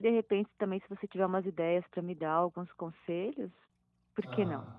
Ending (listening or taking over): taking over